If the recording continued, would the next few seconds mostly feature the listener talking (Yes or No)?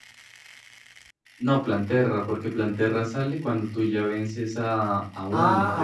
Yes